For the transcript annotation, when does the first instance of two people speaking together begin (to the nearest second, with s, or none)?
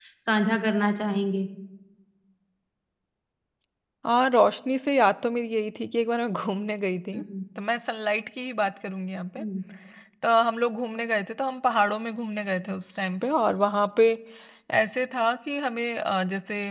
none